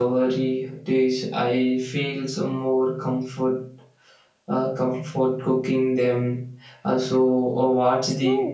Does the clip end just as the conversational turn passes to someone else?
Yes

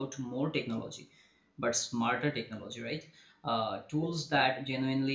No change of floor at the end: Yes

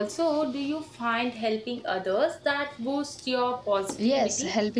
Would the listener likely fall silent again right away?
No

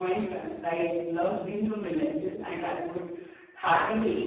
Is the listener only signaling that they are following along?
Yes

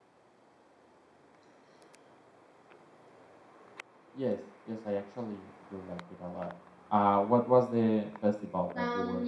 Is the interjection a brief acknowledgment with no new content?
No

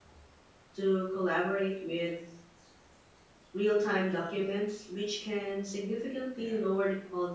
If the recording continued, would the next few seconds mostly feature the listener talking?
No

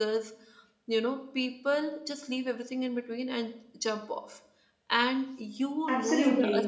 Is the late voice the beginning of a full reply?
No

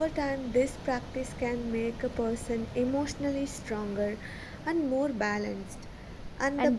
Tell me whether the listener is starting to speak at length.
No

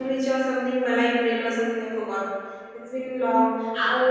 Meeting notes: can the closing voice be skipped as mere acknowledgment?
No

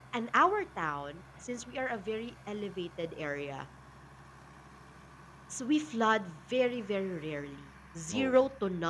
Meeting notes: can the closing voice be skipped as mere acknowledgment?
Yes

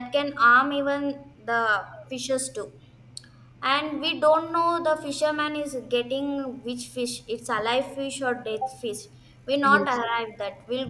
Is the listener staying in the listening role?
Yes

